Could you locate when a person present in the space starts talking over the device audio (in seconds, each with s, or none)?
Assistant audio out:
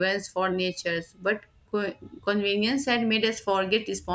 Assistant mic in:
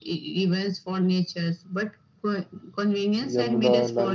3.2 s